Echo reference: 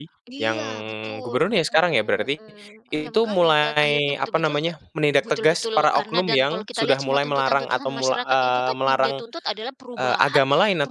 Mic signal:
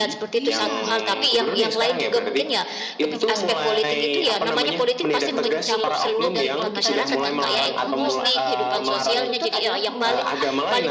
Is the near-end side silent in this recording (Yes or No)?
No